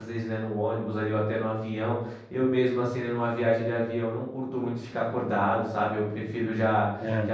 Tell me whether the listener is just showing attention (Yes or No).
Yes